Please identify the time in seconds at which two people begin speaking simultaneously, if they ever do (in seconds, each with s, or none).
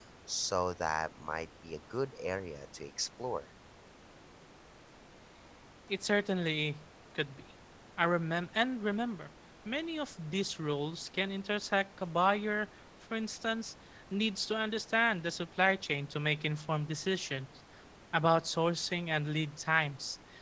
none